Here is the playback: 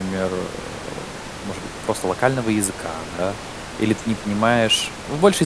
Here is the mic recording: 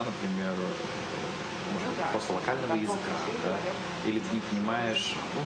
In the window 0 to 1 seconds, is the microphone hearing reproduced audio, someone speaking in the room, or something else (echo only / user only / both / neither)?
echo only